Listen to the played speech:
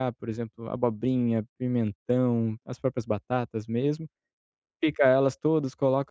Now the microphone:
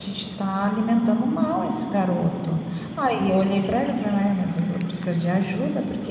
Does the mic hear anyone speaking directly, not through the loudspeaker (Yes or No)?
Yes